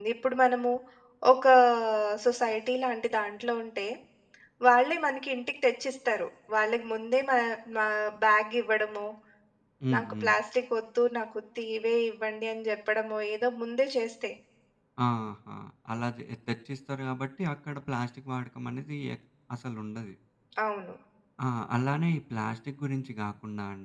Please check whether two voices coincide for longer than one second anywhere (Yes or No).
No